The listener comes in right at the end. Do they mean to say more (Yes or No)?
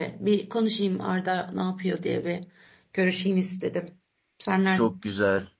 Yes